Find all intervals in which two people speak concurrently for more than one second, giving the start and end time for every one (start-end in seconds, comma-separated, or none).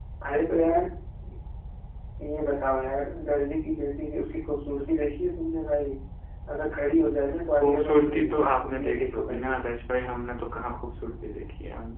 7.5-9.6